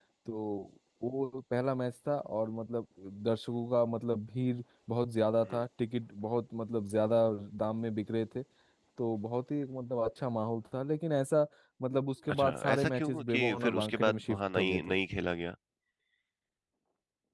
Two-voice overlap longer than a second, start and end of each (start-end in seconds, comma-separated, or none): 12.3-14.8